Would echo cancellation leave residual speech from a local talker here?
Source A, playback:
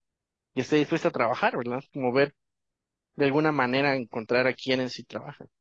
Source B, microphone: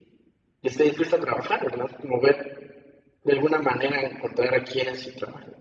No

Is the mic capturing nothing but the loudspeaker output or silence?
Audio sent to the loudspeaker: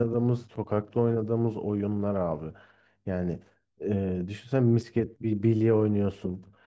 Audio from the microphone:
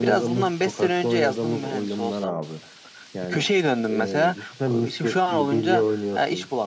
No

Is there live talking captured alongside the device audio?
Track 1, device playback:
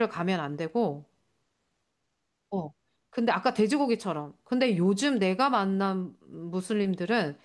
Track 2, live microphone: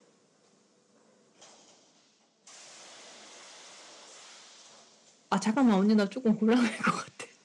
Yes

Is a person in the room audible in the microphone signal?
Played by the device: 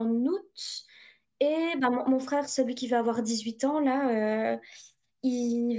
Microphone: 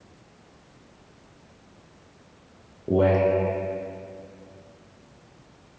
Yes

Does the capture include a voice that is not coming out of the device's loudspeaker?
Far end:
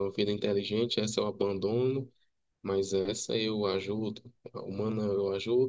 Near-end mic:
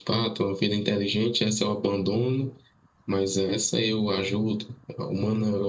No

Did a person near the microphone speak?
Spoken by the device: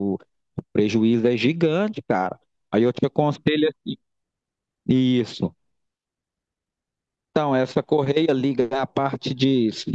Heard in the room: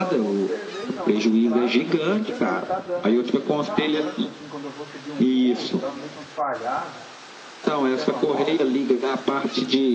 Yes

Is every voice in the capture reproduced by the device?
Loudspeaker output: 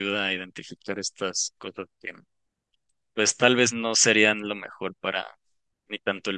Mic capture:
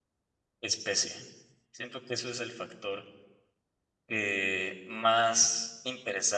No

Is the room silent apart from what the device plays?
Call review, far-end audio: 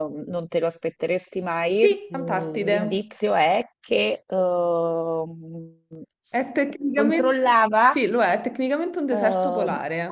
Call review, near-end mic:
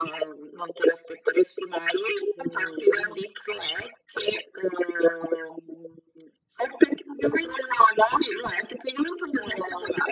Yes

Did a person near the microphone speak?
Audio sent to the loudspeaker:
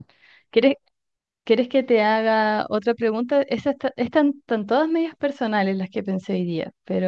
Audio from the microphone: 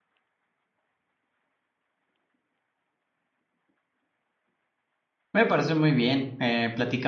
Yes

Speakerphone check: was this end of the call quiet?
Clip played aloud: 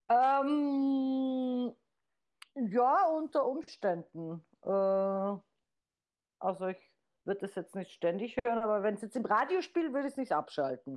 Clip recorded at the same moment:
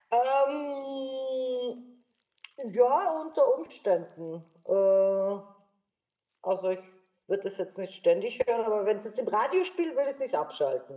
Yes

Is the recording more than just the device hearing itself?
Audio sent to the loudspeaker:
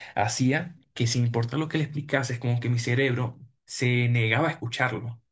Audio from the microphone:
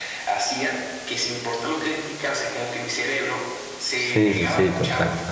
Yes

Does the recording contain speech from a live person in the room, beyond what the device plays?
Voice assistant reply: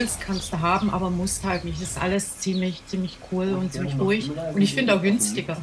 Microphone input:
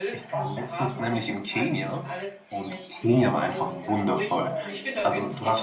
Yes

